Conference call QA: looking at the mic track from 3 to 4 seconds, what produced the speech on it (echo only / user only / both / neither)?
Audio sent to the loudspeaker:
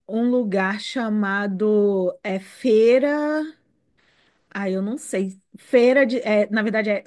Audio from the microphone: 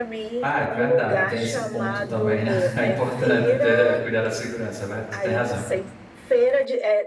both